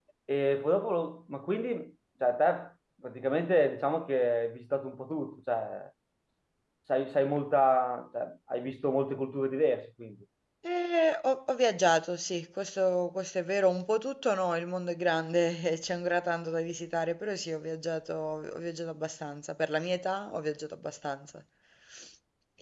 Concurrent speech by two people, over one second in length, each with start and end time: none

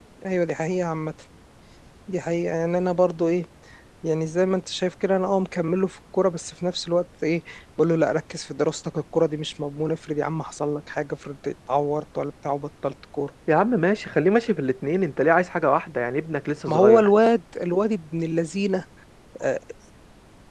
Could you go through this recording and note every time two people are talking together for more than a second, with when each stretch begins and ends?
none

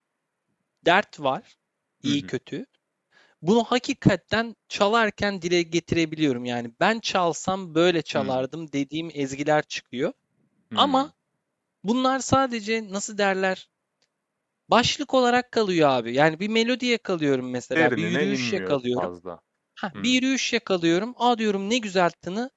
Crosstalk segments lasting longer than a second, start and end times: 17.8-19.1

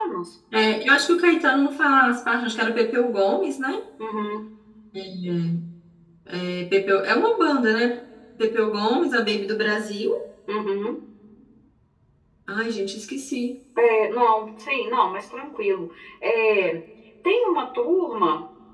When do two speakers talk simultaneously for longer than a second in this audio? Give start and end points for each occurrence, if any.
none

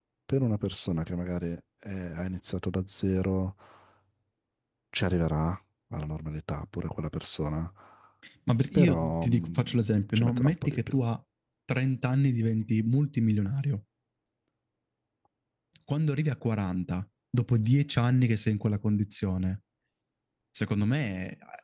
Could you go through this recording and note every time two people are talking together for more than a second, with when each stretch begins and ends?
8.7-11.0

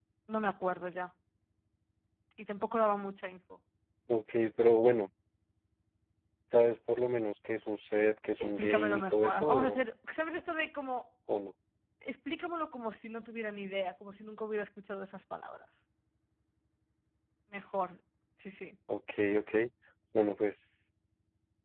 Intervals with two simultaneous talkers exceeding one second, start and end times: 8.4-9.8

